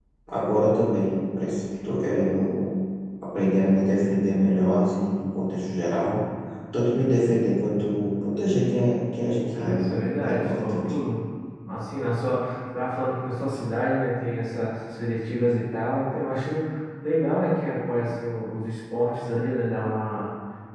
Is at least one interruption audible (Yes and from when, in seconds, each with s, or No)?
Yes, from 9.5 s